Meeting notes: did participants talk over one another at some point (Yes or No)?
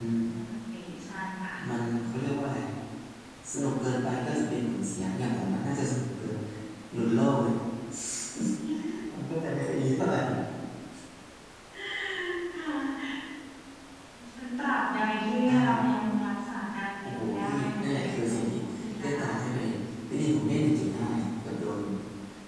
Yes